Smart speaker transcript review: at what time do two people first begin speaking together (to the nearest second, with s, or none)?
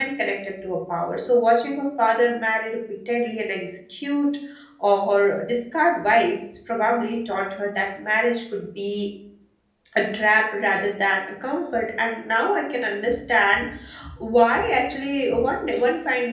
none